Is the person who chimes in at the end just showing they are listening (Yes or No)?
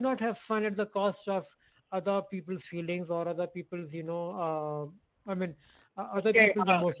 No